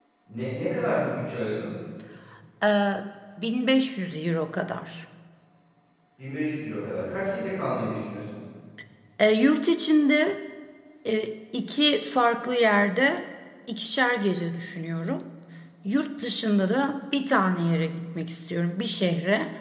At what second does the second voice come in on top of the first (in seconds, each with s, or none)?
none